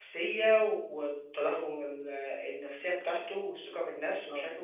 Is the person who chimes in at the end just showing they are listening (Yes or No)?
Yes